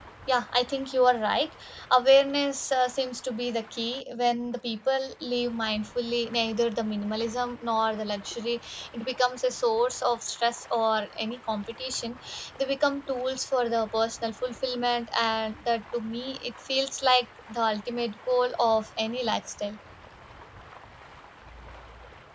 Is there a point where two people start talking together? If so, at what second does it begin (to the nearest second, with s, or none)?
none